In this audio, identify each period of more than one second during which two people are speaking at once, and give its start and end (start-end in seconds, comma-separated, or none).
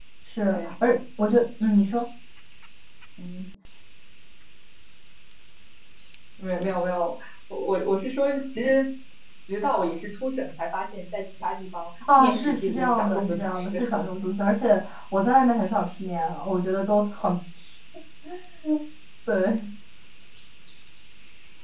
12.2-13.8